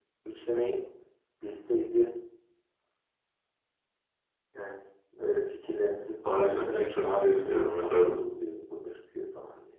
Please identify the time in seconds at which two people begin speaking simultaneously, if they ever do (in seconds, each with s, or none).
6.2 s